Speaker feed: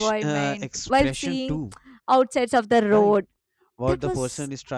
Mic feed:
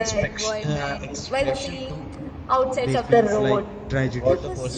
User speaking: Yes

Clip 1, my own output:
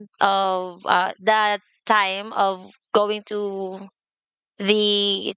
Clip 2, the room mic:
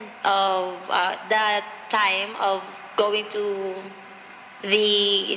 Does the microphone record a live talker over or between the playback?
No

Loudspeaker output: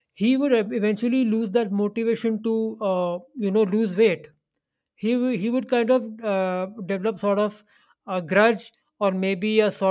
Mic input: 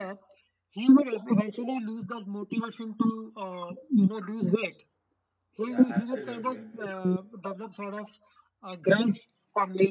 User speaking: Yes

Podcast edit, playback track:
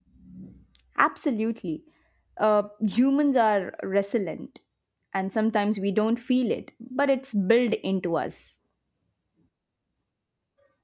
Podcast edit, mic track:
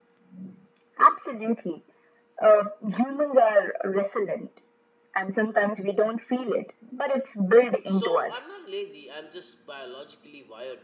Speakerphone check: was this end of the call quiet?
No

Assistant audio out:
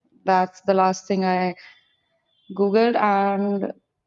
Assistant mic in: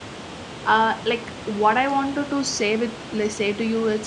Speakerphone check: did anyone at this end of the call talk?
Yes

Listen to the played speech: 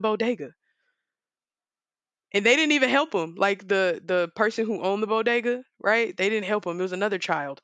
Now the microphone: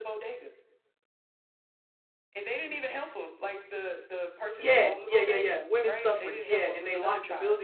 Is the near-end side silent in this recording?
No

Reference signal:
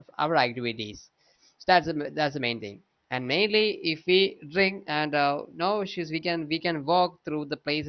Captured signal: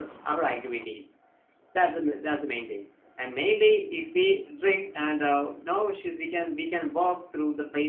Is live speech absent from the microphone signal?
Yes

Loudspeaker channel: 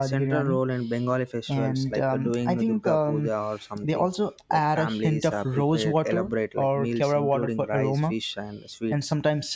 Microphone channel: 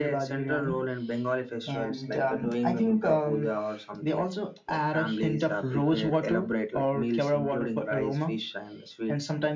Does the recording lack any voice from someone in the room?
Yes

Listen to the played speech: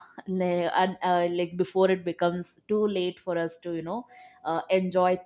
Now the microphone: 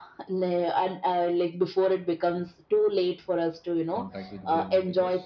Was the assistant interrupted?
Yes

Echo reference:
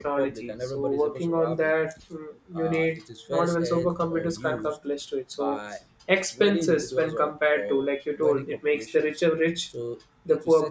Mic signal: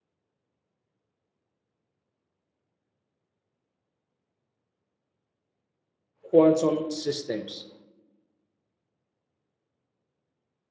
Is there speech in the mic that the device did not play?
Yes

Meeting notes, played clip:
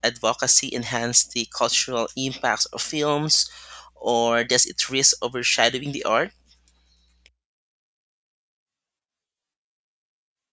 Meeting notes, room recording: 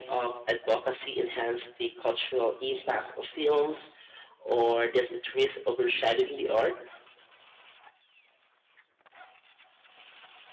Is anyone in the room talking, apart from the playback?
No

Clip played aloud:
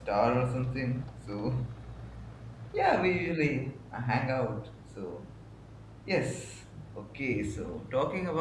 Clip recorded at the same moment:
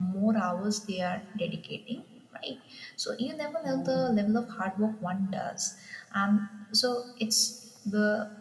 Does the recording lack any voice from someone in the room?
No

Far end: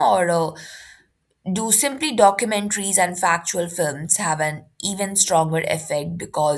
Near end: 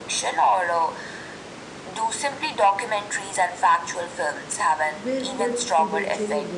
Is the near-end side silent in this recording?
No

